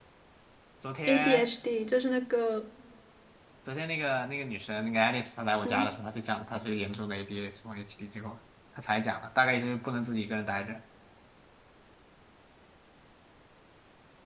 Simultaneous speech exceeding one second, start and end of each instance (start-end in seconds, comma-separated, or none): none